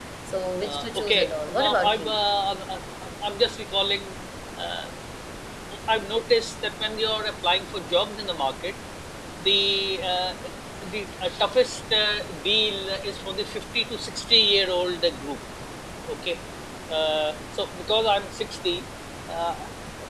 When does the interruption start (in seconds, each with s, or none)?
0.6 s